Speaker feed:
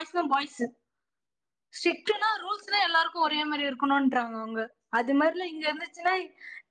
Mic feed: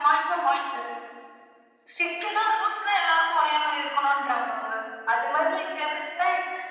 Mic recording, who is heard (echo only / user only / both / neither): echo only